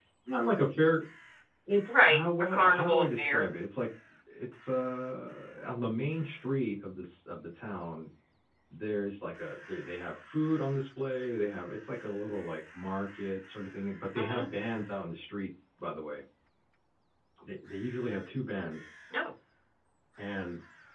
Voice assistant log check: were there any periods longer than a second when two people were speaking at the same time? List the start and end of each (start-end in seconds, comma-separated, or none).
1.9-3.4